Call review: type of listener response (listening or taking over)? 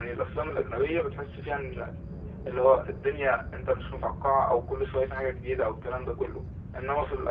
listening